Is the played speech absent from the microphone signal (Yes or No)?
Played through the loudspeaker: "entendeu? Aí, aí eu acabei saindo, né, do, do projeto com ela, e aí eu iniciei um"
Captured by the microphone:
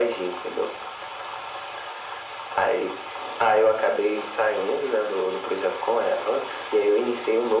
No